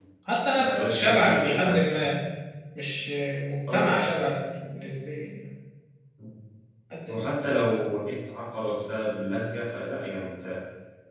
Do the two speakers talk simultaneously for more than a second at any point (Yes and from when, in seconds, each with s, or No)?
Yes, from 0.6 s